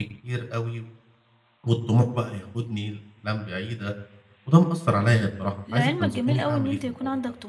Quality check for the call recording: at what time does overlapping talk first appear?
5.7 s

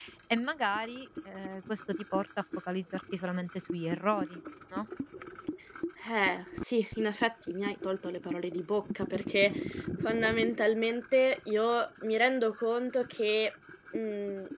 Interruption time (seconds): none

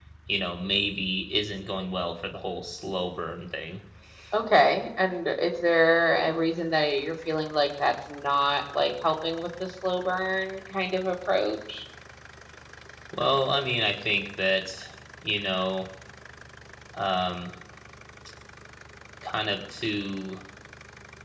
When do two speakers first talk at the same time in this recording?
none

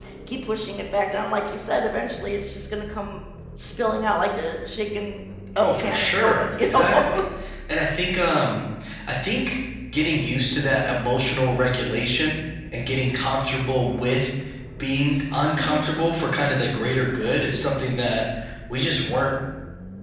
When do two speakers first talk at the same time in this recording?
5.6 s

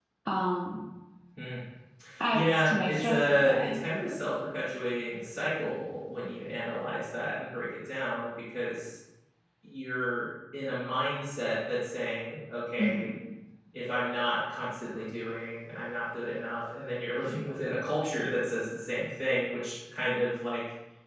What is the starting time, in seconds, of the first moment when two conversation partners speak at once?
2.3 s

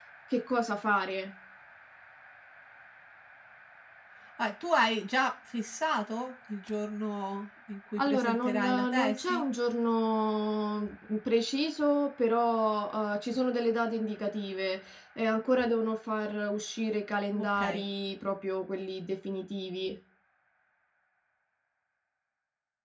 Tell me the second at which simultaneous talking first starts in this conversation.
8.0 s

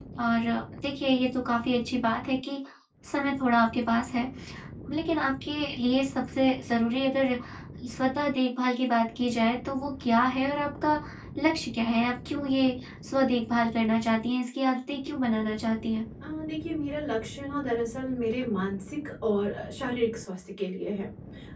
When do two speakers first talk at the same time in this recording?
none

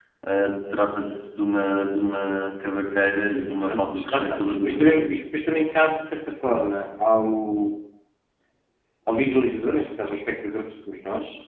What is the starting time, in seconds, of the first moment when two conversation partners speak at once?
3.6 s

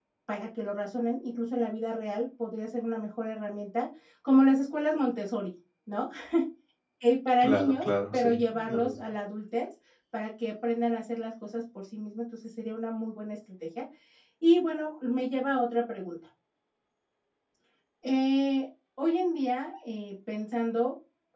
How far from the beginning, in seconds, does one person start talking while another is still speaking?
7.4 s

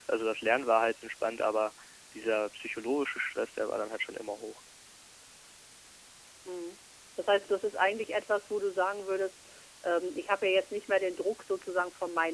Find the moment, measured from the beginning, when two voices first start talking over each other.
none

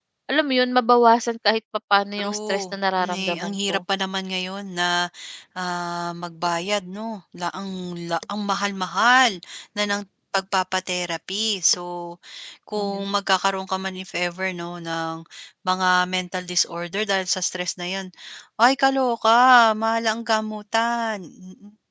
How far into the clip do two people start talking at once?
2.2 s

